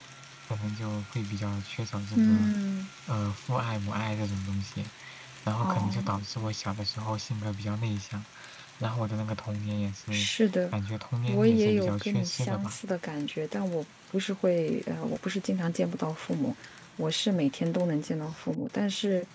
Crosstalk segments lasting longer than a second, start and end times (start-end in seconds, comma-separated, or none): 11.3-12.8